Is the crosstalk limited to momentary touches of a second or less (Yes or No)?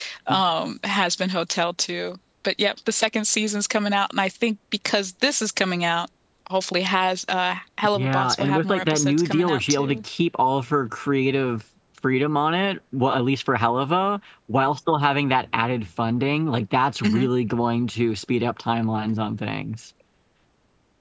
No